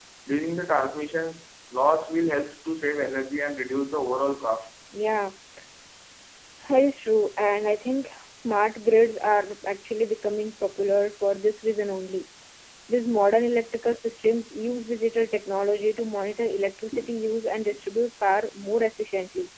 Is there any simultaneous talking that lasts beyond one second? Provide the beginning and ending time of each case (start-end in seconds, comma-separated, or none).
none